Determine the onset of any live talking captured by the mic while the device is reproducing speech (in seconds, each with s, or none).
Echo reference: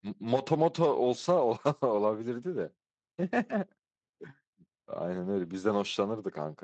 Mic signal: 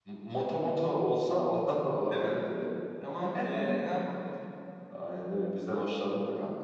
2.1 s